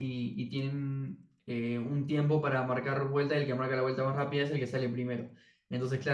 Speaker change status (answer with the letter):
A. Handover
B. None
B